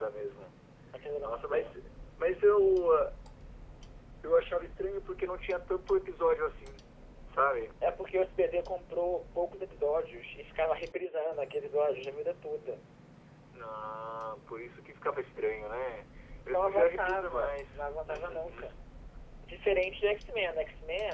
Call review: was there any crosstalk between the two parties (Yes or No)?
Yes